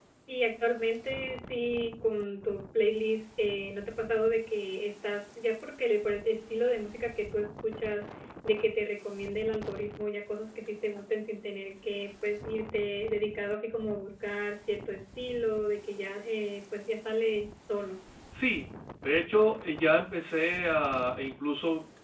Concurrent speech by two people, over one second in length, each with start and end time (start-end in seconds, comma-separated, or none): none